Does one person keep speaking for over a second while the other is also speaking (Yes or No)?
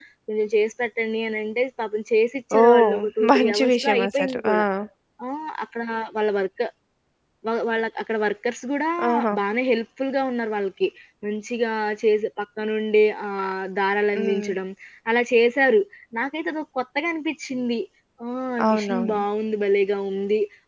Yes